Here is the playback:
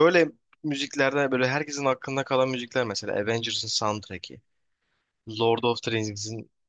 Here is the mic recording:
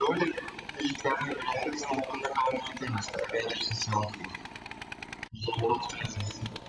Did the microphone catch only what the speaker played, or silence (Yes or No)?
Yes